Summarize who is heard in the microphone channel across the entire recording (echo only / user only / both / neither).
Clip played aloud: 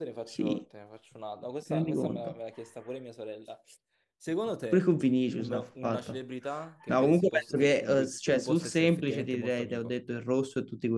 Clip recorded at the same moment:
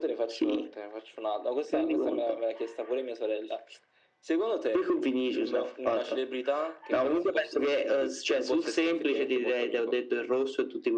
echo only